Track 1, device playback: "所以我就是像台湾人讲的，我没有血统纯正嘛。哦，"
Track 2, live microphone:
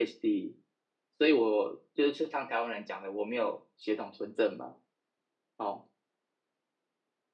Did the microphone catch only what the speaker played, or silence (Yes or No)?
Yes